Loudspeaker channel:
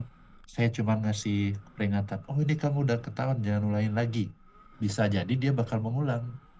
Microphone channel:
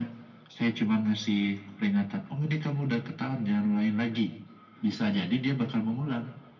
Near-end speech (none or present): none